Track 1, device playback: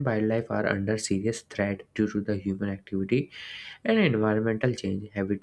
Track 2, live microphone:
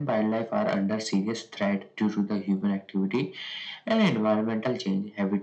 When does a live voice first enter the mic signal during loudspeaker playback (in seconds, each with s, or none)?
none